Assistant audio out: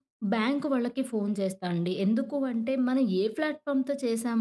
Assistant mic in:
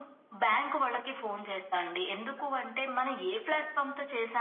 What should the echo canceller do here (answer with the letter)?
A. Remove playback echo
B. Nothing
A